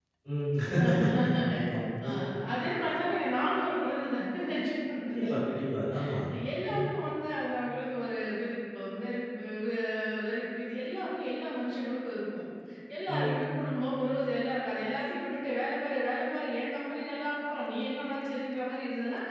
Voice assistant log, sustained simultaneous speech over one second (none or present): none